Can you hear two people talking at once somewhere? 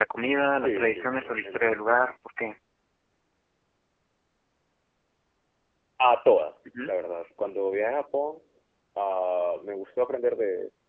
Yes, from 0.6 s

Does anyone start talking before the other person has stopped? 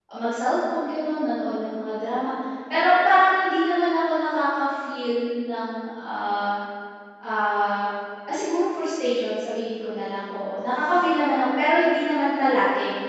No

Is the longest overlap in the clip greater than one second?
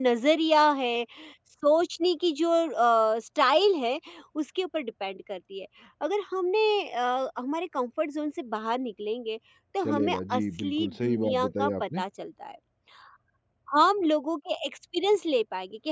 Yes, from 9.8 s

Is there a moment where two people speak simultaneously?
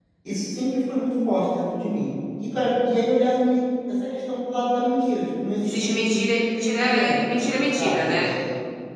Yes, from 5.7 s

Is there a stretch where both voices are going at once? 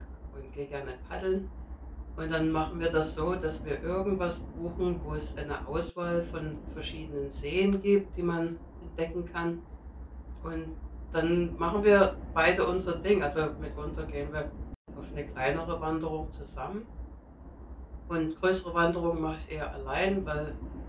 No

